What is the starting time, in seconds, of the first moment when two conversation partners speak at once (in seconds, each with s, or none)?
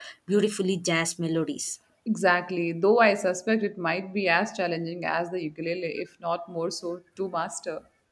none